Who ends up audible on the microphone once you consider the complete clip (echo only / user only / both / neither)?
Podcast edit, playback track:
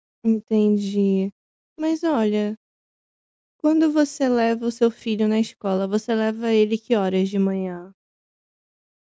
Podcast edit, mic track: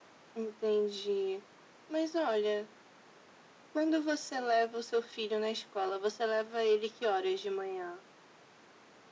echo only